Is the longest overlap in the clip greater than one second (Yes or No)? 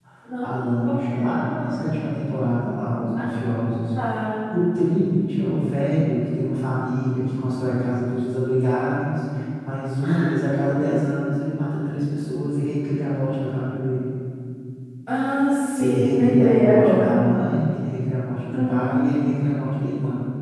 Yes